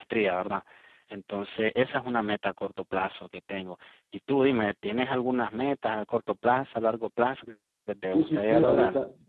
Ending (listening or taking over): taking over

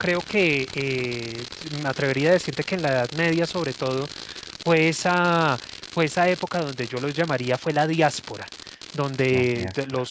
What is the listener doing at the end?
listening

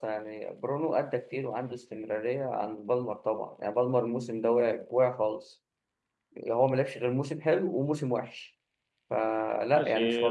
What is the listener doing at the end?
taking over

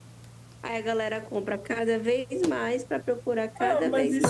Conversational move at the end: taking over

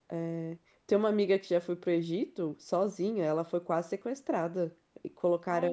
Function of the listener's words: listening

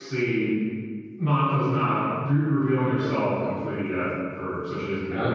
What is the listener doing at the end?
listening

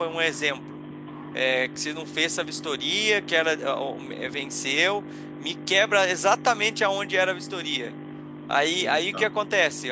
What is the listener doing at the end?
listening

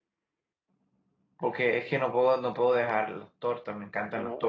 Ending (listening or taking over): taking over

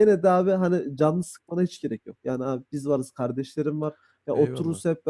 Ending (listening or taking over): listening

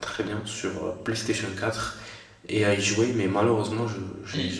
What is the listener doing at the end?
taking over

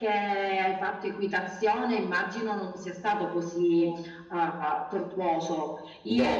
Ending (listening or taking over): listening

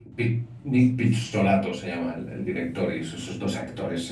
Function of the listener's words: listening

